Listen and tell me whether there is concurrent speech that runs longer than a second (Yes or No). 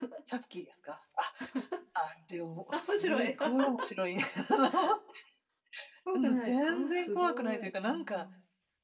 Yes